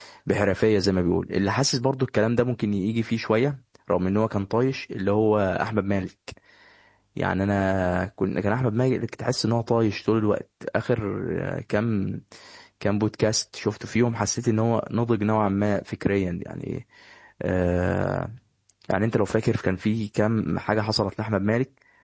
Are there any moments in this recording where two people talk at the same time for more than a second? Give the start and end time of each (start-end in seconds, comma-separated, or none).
none